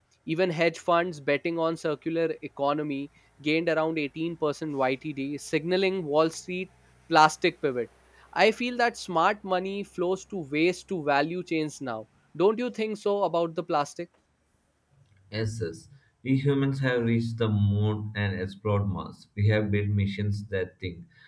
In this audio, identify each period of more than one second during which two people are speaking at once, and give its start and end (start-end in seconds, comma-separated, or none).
none